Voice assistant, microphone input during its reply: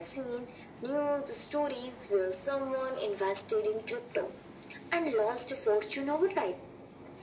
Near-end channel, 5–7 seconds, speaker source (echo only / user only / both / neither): echo only